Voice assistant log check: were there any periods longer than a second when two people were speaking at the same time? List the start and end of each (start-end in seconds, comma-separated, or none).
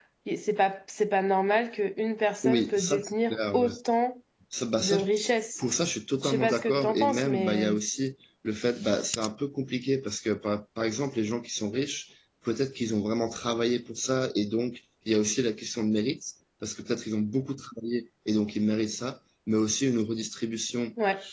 2.4-3.7, 6.2-7.8